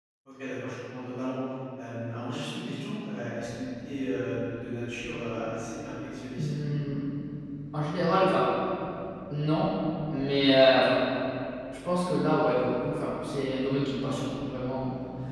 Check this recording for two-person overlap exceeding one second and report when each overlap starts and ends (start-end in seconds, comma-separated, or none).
none